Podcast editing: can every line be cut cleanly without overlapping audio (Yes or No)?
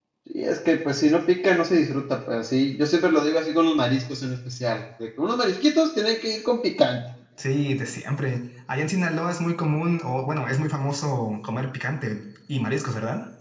Yes